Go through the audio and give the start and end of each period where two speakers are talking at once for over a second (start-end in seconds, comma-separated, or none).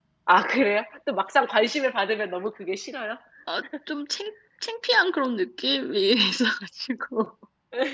none